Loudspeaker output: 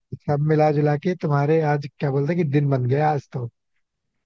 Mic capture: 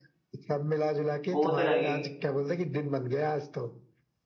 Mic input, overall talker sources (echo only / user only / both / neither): both